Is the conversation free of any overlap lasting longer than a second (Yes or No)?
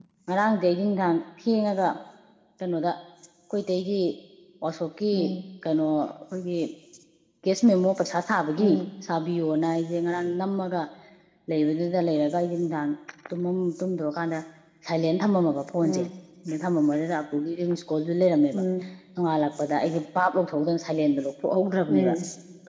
Yes